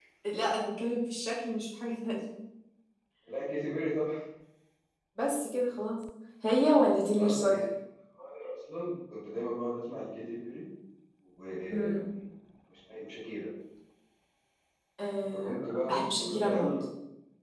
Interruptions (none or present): present